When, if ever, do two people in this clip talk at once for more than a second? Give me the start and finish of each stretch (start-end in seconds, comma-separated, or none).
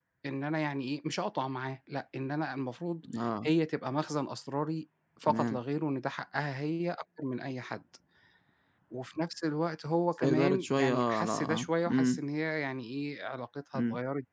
10.2-12.2